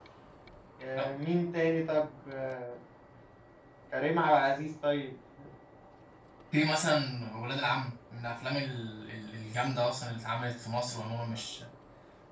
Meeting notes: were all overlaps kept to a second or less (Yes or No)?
Yes